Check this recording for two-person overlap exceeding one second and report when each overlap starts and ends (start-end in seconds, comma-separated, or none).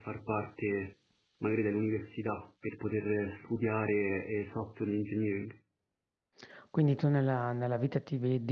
none